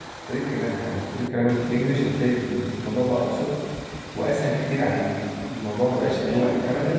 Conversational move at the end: taking over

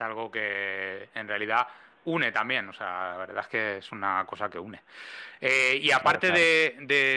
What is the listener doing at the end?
listening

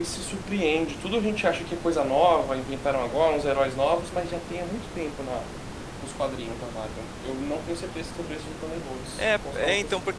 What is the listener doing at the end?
taking over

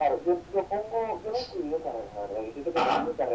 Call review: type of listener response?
listening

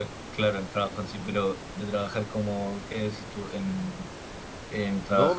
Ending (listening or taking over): taking over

